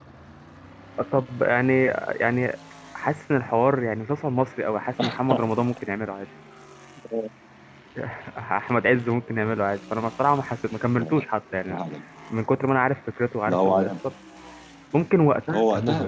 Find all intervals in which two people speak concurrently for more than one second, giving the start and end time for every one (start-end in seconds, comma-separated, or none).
none